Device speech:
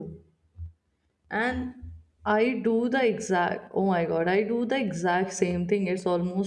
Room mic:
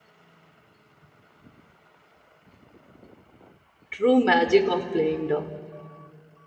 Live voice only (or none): true magic of playing down.